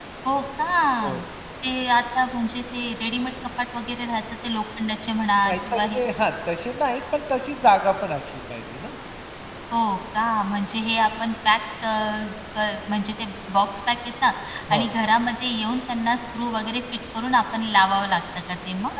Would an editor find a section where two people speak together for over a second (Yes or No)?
No